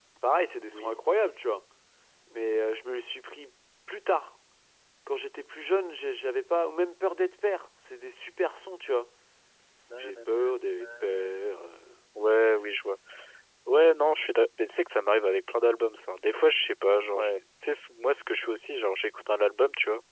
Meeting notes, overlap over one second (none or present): present